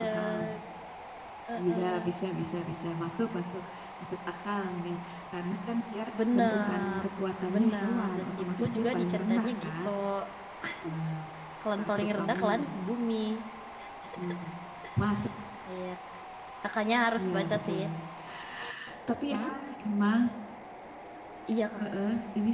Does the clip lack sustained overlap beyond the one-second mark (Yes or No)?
No